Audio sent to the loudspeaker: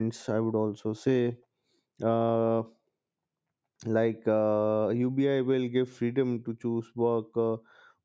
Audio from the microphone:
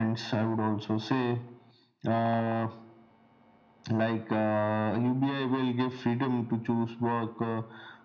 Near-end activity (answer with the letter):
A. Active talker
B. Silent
B